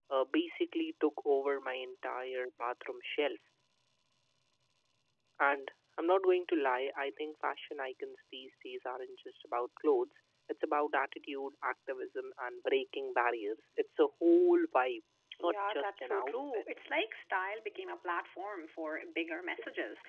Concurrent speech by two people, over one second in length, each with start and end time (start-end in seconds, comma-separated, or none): 15.4-16.6